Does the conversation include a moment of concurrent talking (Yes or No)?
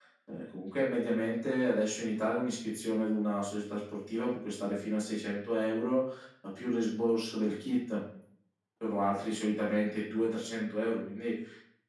No